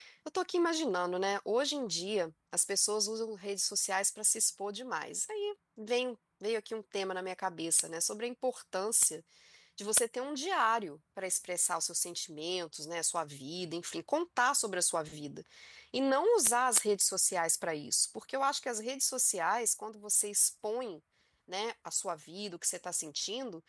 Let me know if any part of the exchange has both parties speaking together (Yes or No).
No